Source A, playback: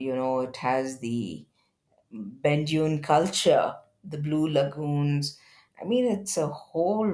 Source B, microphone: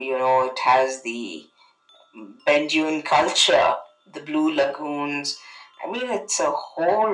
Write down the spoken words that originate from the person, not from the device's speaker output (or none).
none